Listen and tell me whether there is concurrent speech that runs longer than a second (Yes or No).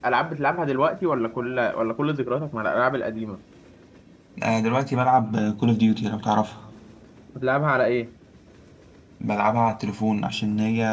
No